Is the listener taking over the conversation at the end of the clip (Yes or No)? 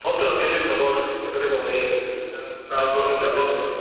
Yes